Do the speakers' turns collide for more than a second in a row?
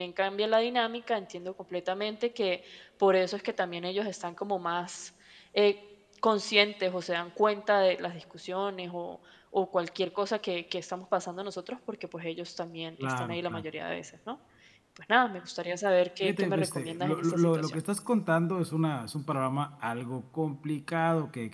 Yes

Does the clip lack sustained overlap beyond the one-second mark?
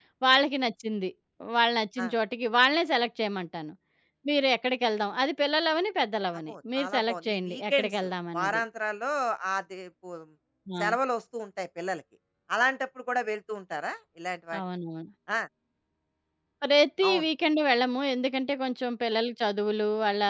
No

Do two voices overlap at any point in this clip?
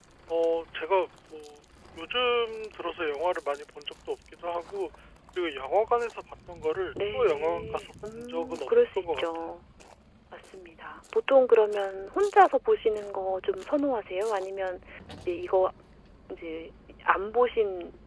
Yes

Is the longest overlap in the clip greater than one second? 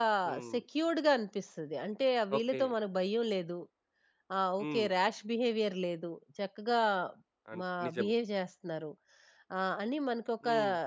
No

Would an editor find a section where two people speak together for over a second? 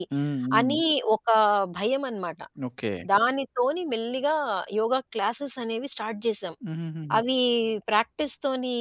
No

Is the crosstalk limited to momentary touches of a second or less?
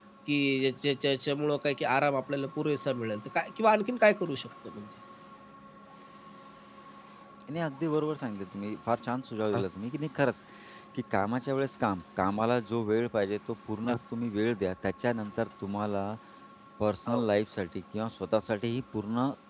Yes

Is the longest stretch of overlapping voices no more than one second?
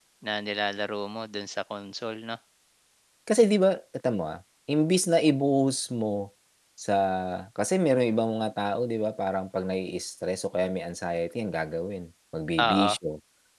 Yes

